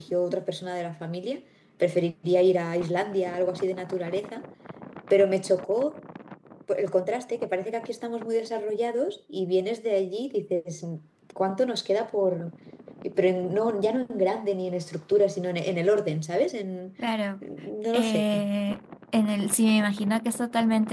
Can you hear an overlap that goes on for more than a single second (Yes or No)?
No